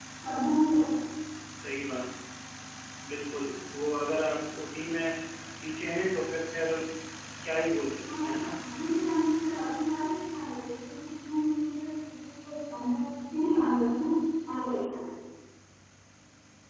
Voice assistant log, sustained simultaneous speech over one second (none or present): none